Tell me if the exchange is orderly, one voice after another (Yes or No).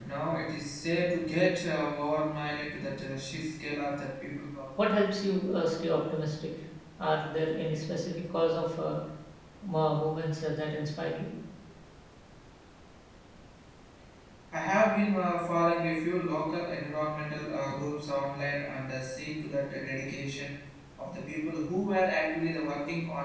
Yes